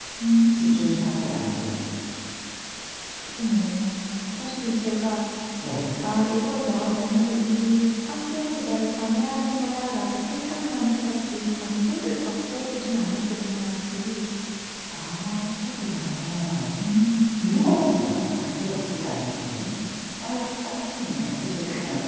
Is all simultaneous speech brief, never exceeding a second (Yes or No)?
Yes